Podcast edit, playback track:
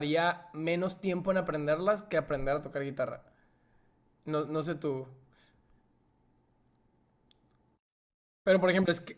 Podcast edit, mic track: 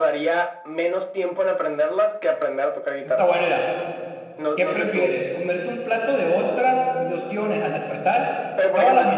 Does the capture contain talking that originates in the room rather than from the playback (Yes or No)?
Yes